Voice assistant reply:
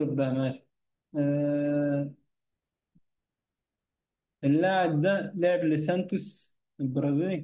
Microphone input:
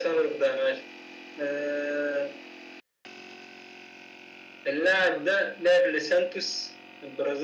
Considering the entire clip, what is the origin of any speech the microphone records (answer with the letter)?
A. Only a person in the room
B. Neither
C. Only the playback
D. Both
C